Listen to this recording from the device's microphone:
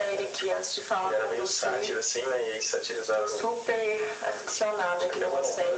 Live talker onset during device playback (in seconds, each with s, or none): none